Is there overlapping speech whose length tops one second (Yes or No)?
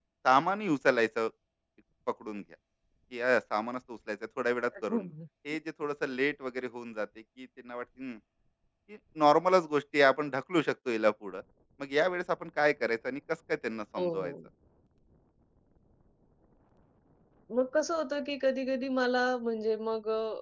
No